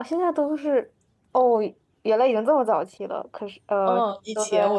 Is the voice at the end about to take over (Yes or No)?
Yes